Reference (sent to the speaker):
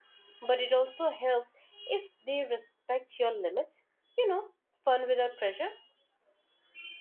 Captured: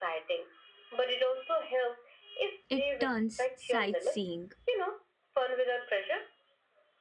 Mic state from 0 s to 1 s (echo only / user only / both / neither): echo only